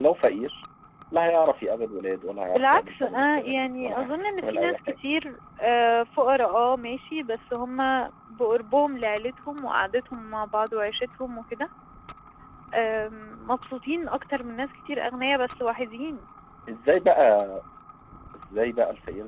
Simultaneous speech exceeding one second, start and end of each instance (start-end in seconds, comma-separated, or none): 2.5-4.8